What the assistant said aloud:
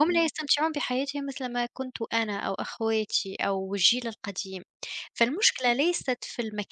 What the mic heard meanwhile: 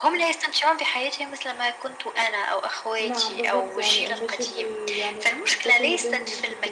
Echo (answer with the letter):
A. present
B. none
A